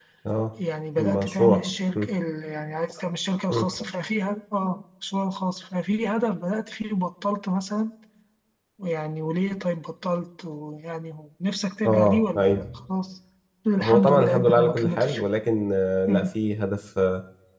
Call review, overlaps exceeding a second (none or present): present